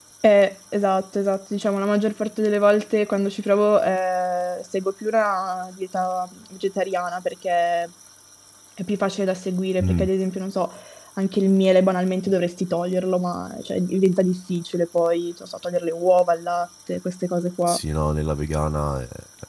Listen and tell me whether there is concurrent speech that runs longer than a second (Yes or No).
No